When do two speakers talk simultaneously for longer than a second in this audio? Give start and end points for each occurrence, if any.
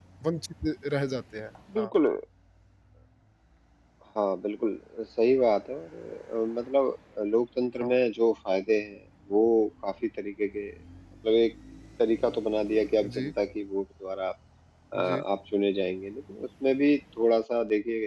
none

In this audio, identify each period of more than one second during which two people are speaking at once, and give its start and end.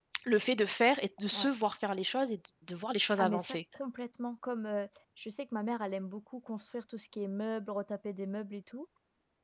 none

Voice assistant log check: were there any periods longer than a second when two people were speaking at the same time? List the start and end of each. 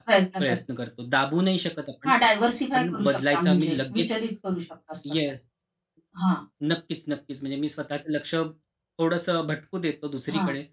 2.7-4.0

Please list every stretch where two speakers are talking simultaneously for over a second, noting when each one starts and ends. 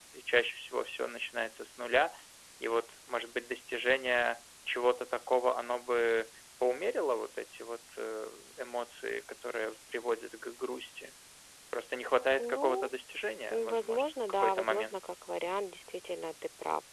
13.5-15.0

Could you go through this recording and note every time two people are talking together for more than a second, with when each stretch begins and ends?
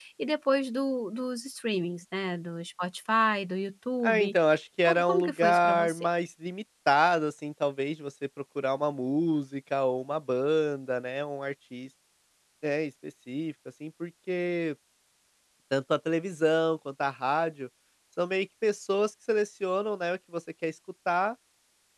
4.8-6.1

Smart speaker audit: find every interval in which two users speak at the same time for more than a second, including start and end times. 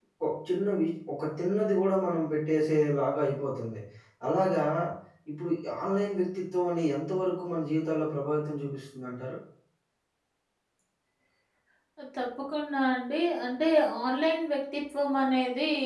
none

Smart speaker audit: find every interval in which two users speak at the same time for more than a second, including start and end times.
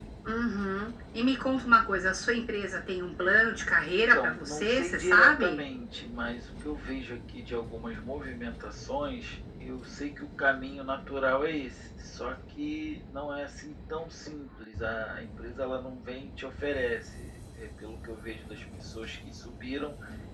3.9-5.6

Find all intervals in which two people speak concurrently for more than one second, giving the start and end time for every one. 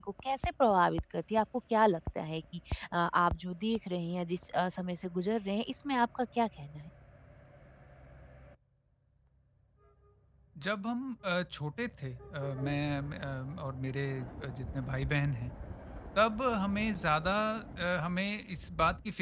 none

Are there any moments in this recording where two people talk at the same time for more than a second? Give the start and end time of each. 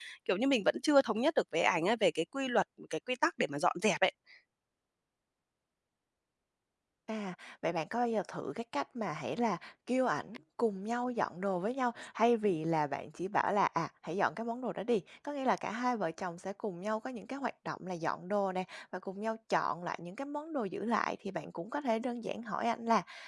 none

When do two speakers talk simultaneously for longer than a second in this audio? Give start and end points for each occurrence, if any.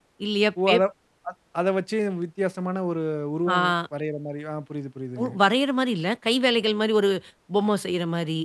none

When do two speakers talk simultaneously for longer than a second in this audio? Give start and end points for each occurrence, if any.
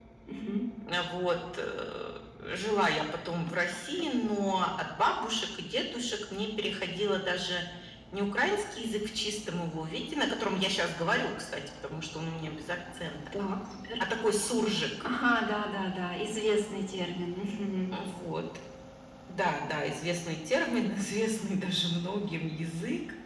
none

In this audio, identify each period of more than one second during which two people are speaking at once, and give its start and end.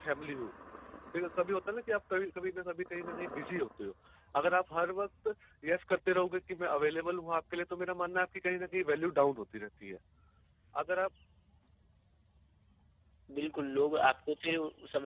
none

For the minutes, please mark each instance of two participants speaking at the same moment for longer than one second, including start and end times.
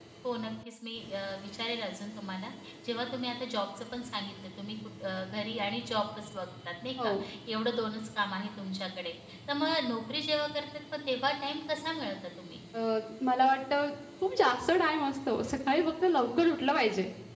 none

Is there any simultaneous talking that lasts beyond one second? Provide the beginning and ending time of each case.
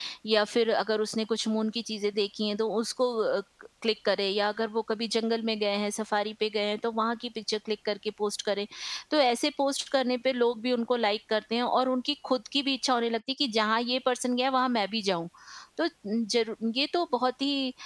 none

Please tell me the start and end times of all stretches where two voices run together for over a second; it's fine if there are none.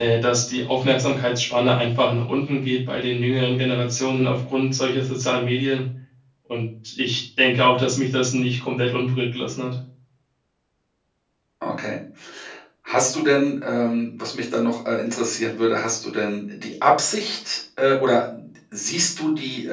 none

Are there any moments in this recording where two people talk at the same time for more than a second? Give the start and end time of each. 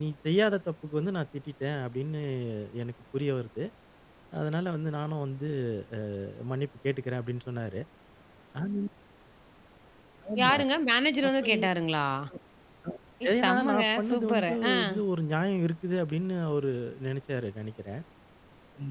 13.3-14.8

